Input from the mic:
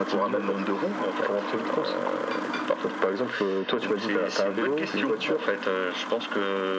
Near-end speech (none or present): none